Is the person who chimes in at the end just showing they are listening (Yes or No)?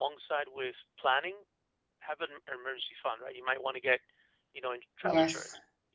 Yes